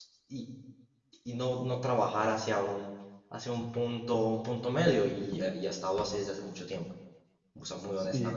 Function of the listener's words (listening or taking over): taking over